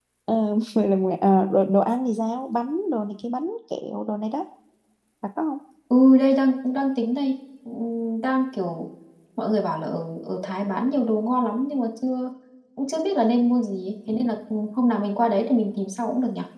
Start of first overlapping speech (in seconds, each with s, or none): none